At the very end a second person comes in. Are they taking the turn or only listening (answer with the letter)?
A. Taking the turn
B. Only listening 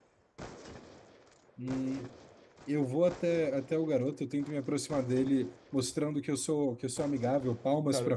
A